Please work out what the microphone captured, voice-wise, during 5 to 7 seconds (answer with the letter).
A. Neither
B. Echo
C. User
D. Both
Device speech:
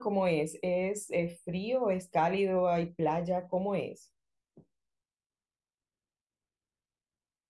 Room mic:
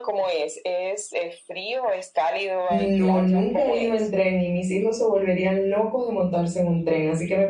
C